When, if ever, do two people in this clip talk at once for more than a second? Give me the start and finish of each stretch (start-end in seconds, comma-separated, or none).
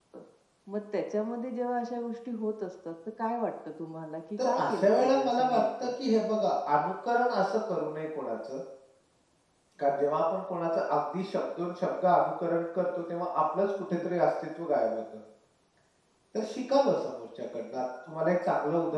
4.4-5.9